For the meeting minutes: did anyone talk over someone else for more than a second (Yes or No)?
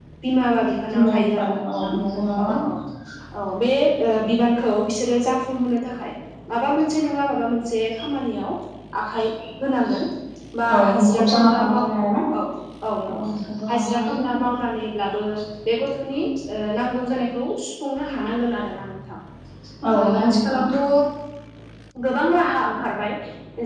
Yes